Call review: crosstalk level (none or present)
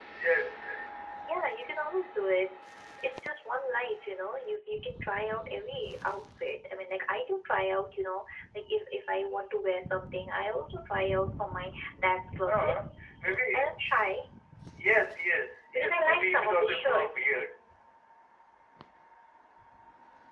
present